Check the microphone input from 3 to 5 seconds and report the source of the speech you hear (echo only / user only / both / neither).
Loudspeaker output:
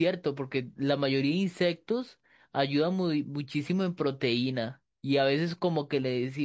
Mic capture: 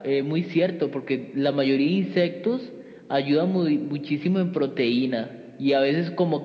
echo only